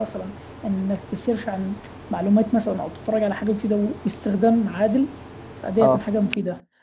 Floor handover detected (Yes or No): No